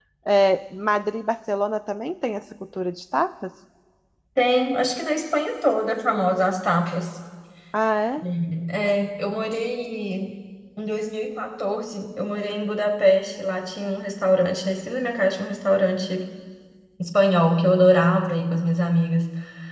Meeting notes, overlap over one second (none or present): none